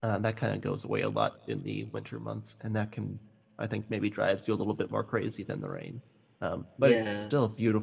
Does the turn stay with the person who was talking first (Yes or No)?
Yes